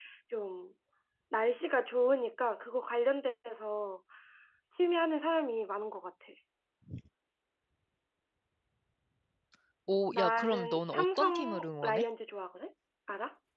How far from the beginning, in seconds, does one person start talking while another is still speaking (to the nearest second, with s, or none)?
10 s